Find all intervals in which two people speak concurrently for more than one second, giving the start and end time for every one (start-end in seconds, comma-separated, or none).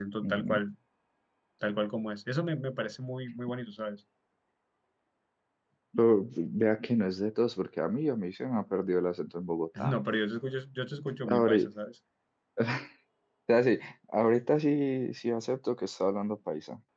none